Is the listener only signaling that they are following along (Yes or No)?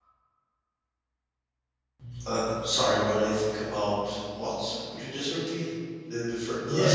No